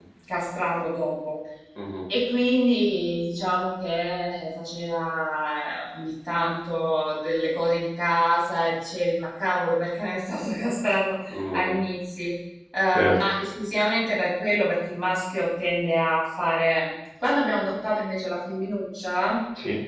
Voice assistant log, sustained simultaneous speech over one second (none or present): none